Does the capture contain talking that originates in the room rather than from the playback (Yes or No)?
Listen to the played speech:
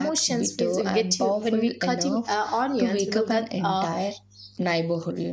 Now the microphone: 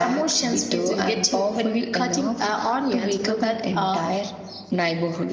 No